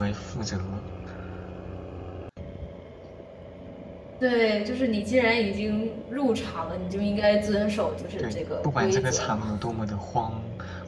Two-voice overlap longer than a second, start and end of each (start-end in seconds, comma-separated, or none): 8.2-9.5